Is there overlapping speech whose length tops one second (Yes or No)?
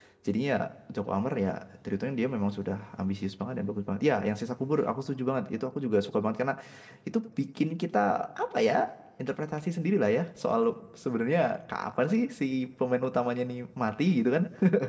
No